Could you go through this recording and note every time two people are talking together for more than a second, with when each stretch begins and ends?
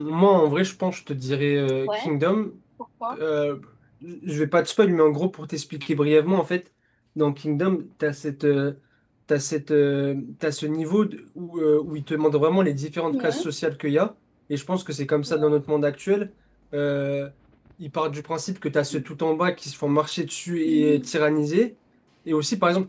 none

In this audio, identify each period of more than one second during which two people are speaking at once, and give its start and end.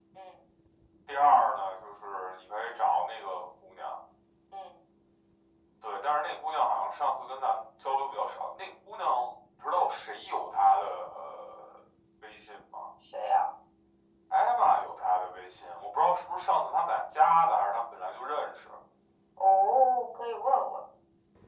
none

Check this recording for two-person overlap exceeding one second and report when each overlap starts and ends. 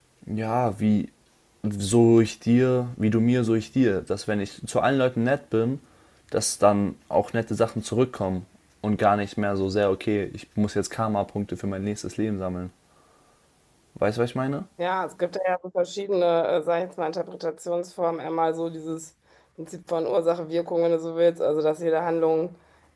none

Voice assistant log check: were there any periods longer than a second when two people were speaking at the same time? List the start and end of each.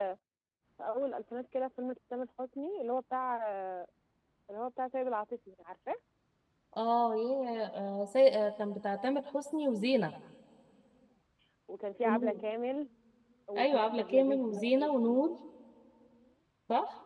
13.6-15.3

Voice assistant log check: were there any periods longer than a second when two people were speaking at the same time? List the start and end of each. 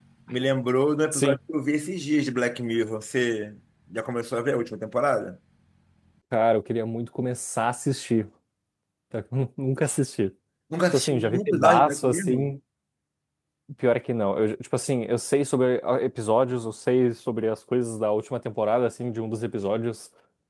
10.9-12.5

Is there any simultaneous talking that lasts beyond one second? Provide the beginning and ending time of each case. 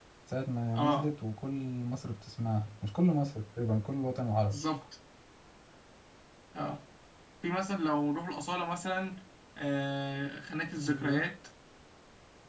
none

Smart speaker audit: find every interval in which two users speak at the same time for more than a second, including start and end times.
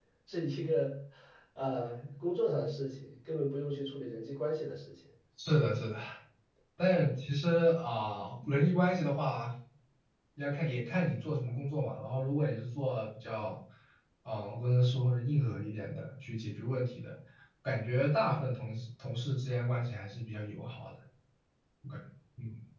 none

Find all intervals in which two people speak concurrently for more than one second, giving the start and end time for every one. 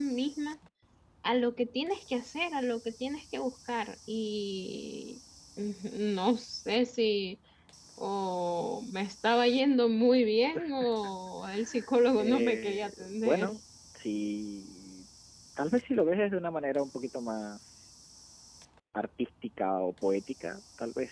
12.2-13.5

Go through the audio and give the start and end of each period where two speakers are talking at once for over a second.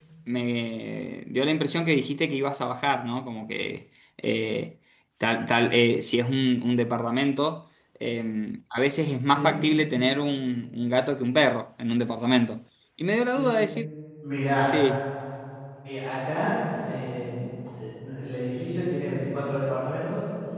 none

